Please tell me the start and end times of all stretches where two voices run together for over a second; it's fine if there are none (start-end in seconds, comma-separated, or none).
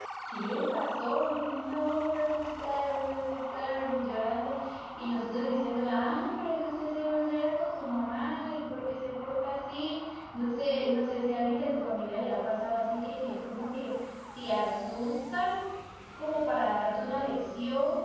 none